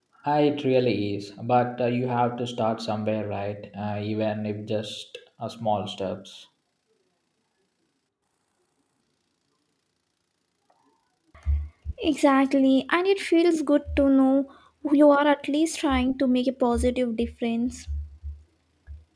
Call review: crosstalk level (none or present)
none